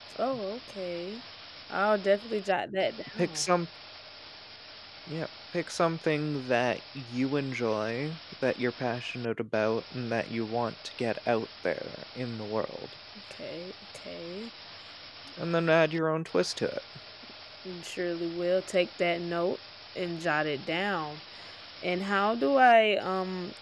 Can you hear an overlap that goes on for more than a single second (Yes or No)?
No